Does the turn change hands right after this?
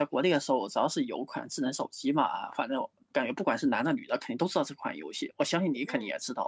Yes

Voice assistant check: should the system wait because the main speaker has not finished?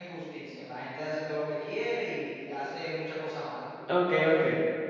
No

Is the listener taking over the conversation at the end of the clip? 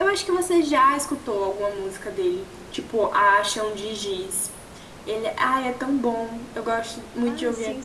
Yes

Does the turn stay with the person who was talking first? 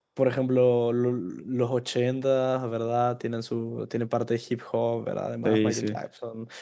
Yes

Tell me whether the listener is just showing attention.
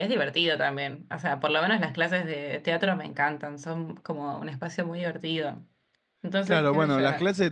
No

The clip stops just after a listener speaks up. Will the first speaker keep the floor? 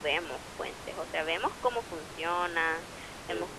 Yes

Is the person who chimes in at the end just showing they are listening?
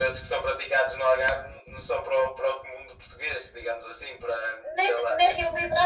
No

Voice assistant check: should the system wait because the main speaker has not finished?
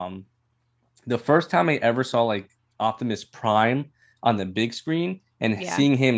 Yes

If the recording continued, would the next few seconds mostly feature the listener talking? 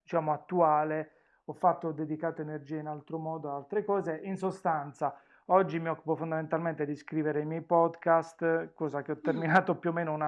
No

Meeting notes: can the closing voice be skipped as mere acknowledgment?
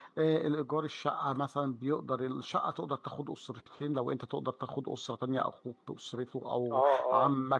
No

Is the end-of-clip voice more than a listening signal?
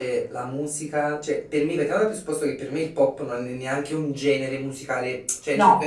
No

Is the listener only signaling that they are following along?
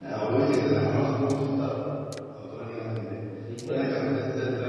Yes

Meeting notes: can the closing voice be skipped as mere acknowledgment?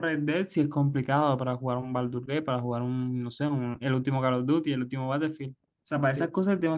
Yes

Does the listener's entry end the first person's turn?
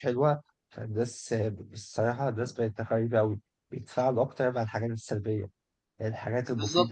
No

